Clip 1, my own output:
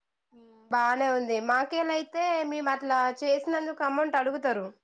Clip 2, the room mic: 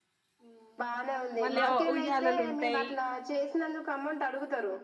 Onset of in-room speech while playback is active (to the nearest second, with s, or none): 1 s